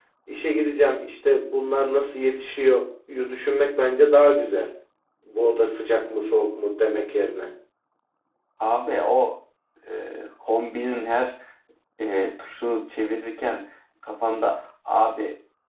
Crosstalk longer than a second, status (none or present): none